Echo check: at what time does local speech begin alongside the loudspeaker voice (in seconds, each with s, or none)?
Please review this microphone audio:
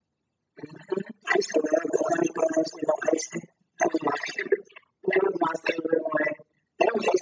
none